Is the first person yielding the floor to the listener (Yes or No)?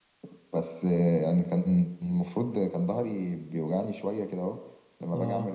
No